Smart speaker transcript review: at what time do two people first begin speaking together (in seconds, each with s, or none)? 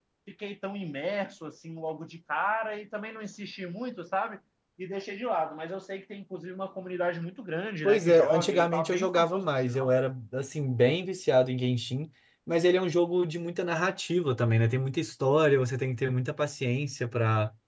7.8 s